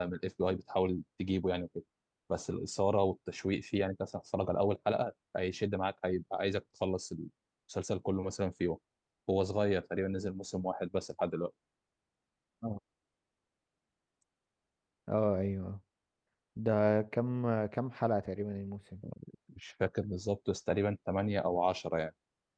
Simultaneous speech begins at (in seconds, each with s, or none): none